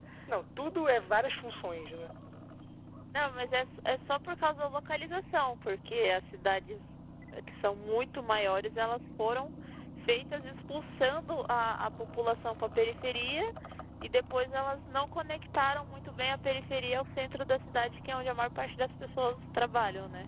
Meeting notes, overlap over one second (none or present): none